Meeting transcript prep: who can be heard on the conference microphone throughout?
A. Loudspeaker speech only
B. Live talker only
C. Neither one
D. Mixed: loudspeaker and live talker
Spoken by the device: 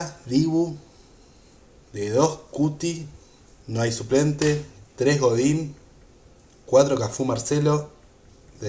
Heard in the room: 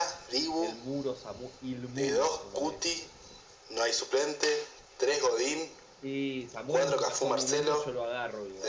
D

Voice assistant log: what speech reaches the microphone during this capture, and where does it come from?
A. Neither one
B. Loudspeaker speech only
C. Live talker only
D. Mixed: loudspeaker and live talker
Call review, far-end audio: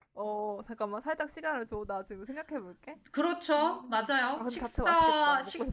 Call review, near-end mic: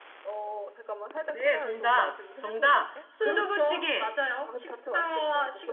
D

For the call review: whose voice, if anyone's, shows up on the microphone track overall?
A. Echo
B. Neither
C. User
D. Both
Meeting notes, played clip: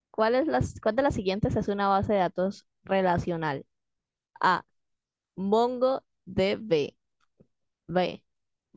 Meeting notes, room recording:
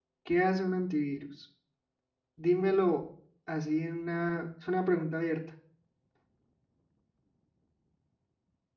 C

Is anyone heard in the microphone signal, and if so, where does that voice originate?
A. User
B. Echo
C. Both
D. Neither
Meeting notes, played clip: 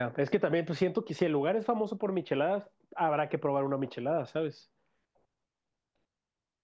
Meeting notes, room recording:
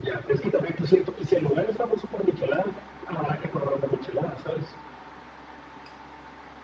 B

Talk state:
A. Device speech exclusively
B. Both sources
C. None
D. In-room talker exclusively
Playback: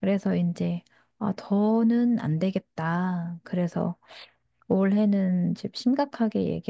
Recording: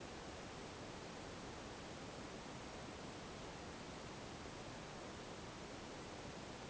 C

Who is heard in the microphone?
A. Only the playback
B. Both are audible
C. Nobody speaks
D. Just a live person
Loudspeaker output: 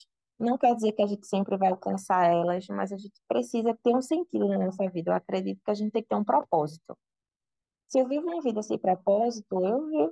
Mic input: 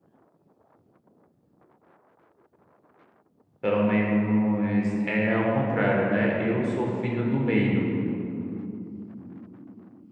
D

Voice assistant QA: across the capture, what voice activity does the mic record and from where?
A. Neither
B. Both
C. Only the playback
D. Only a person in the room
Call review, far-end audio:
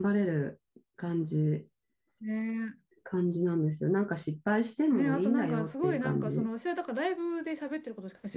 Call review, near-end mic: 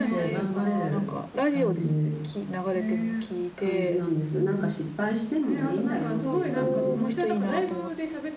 B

